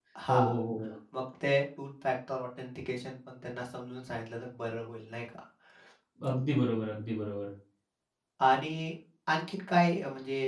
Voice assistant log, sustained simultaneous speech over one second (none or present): none